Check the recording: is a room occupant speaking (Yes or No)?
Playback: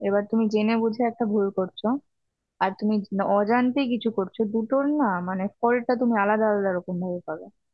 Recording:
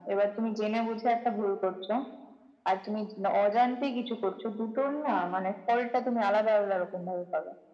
No